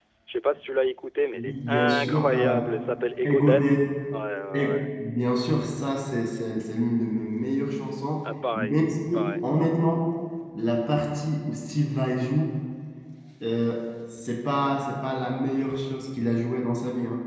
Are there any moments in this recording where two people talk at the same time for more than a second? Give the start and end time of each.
1.3-2.6

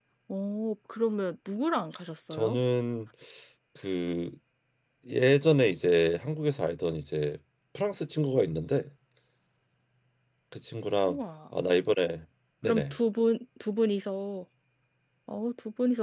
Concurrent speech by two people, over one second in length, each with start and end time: none

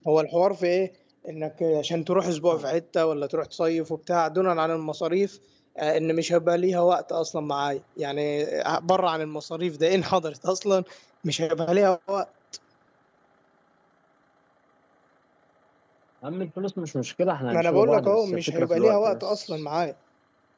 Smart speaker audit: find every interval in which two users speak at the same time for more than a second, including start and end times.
17.5-19.6

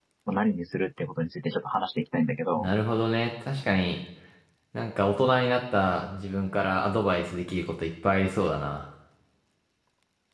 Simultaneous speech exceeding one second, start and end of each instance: none

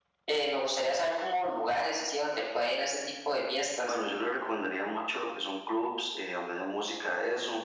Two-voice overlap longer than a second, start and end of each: none

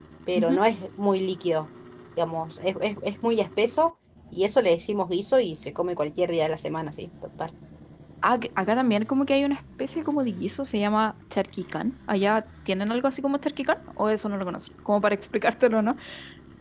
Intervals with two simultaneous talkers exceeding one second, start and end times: none

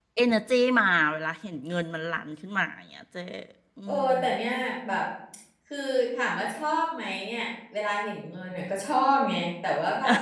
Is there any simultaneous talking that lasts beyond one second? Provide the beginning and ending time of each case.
none

